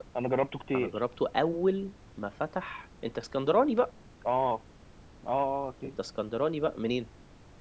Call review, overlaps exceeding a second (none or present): none